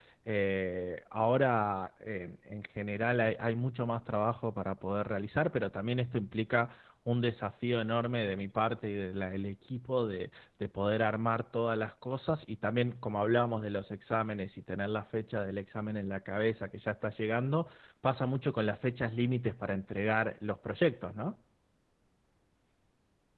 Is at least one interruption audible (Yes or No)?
No